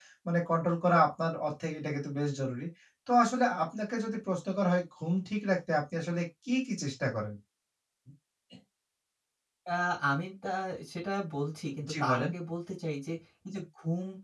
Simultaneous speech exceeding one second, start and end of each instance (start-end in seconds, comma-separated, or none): none